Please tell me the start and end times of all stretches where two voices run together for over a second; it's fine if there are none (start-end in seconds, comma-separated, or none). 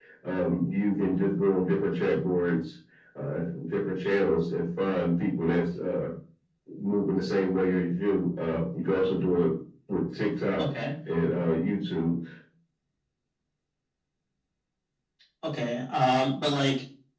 none